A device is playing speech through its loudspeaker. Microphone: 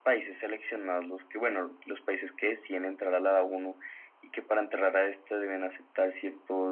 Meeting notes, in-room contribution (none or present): none